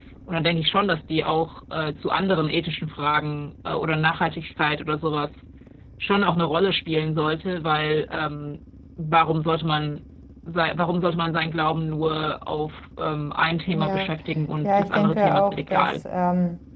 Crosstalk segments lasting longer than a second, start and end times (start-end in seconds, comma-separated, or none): 14.6-15.9